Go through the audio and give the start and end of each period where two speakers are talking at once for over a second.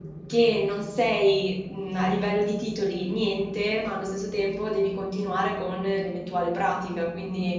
none

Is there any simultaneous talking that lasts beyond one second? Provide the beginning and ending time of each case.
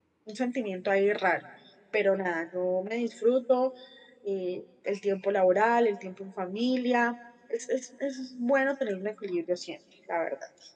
none

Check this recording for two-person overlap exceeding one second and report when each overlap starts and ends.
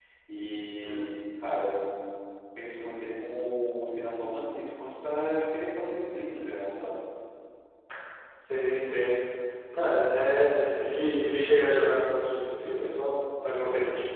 none

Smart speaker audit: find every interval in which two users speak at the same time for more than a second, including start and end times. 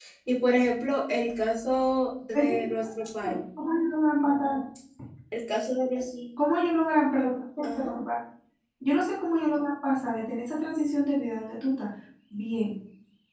none

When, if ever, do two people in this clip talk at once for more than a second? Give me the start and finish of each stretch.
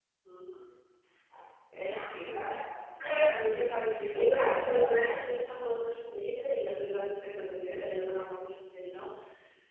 3.2-5.4

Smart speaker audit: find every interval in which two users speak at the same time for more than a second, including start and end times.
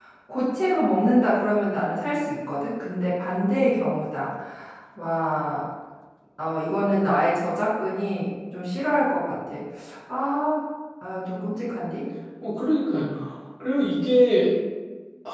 none

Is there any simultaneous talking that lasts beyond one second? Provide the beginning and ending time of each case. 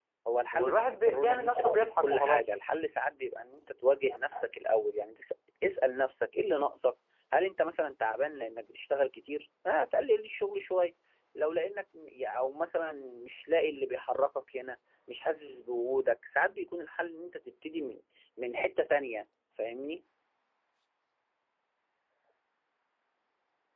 0.5-2.5

